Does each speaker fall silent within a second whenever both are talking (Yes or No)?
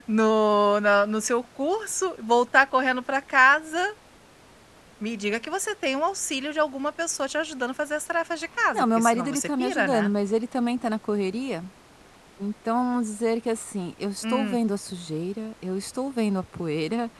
No